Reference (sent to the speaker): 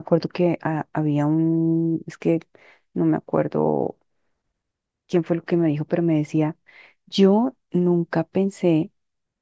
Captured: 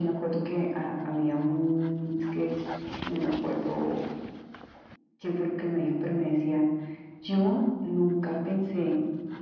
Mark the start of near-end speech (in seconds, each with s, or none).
none